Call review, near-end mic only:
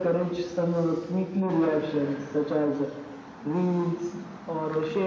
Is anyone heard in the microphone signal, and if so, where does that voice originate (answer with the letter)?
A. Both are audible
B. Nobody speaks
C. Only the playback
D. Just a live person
C